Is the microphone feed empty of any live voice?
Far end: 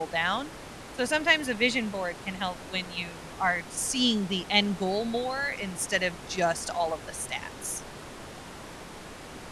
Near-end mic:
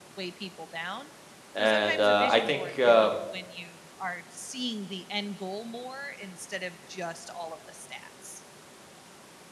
No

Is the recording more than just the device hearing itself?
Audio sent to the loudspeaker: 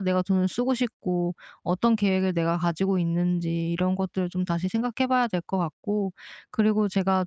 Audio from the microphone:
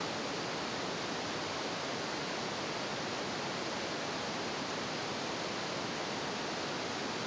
No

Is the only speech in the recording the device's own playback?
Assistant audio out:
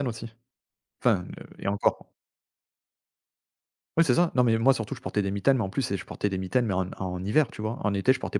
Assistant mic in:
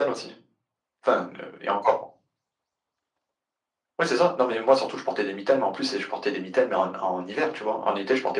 Yes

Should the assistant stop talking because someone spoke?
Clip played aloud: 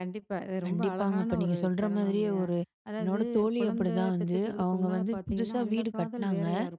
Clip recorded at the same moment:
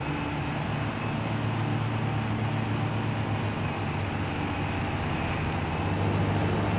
No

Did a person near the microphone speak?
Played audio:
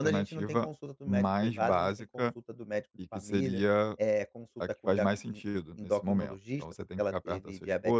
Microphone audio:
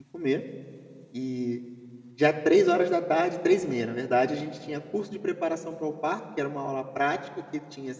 Yes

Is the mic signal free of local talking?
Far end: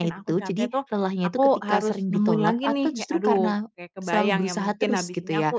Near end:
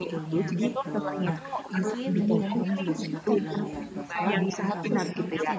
No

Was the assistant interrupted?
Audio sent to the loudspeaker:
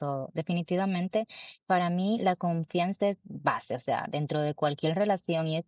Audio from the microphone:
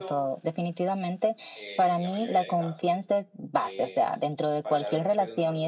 Yes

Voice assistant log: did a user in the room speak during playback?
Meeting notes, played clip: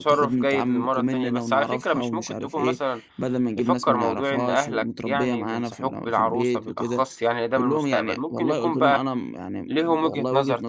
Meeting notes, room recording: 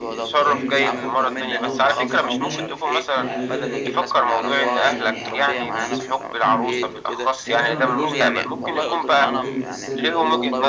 Yes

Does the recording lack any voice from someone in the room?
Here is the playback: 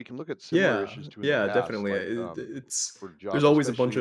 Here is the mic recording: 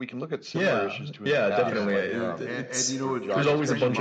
No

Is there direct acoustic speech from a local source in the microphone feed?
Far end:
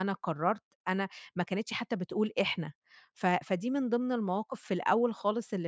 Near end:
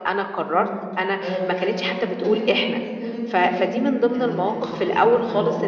Yes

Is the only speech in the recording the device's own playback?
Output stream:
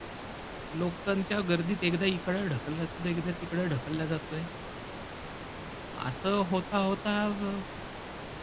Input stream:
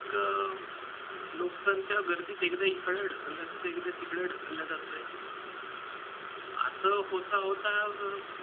Yes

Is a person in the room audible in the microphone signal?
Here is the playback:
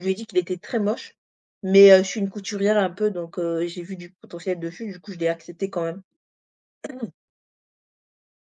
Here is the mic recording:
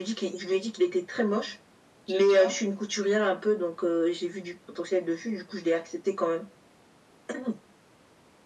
Yes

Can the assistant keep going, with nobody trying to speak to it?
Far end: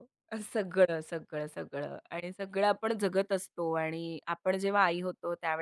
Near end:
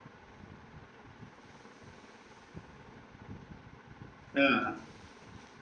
No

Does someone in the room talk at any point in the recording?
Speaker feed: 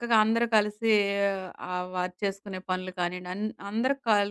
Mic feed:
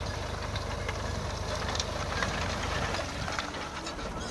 No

